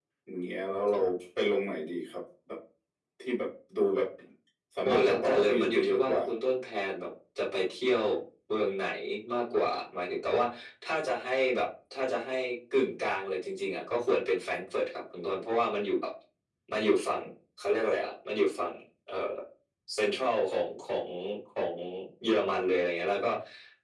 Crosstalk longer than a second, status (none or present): present